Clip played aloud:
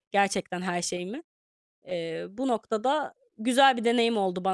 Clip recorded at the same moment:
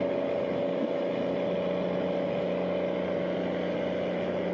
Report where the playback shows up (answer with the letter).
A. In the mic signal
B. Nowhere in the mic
B